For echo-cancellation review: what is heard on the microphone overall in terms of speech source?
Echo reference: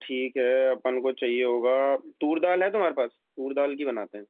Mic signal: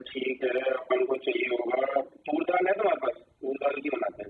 echo only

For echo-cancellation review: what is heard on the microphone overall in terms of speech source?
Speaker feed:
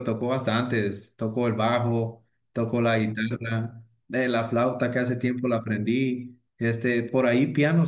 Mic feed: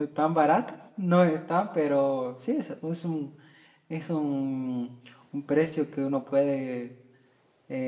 user only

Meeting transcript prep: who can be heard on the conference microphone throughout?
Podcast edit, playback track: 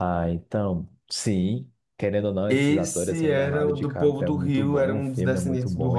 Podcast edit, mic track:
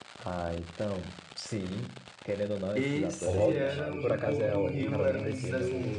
both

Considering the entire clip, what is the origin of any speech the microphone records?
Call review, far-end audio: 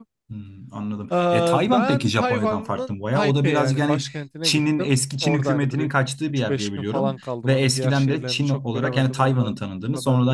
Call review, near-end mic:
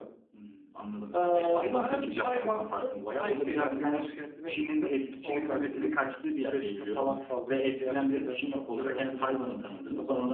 echo only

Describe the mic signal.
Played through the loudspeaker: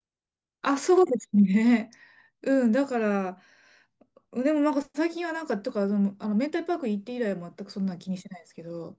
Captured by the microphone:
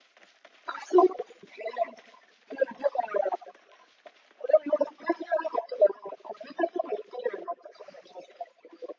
echo only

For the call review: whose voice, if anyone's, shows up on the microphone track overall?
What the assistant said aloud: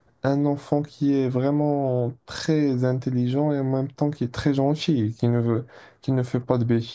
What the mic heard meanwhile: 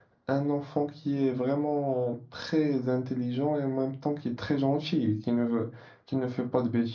echo only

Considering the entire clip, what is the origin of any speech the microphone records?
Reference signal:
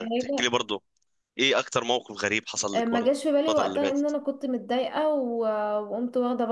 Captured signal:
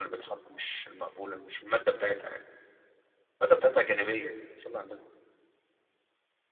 user only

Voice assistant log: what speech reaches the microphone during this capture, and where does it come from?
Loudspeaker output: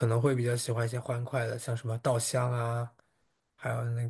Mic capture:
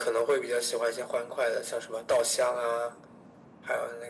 echo only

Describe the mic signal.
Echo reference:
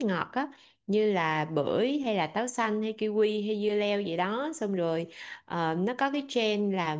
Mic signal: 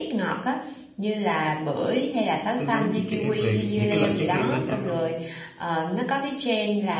both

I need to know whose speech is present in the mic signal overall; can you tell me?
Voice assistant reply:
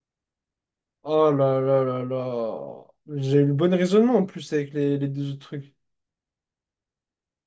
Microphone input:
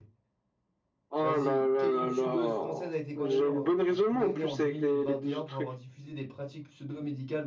both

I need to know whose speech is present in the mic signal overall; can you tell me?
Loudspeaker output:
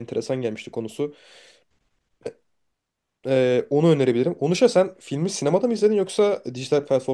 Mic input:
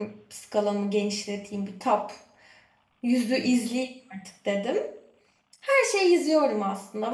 user only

